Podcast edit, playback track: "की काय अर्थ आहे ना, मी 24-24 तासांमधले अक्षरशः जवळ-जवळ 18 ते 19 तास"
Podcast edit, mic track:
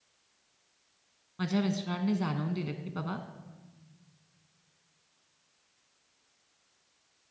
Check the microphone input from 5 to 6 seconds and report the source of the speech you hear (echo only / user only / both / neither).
neither